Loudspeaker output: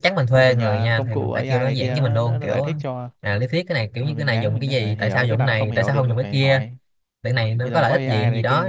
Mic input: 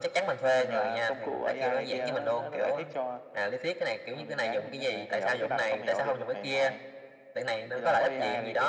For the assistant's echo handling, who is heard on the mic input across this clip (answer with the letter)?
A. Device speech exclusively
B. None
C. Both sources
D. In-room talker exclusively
A